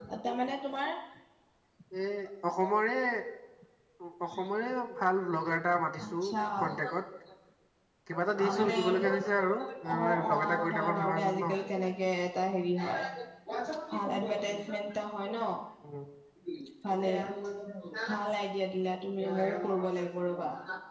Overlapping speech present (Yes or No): Yes